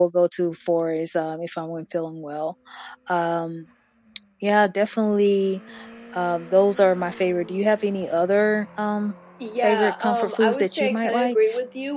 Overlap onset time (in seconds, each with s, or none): 9.6 s